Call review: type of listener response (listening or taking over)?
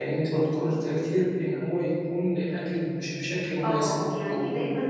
taking over